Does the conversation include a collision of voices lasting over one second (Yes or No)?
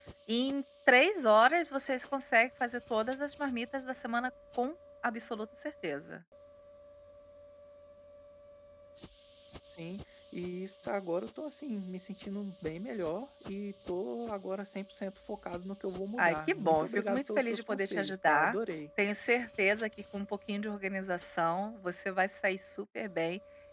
Yes